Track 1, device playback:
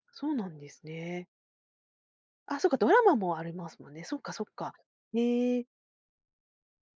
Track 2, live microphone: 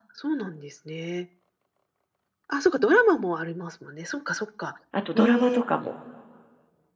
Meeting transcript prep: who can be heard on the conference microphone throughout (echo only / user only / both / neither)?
both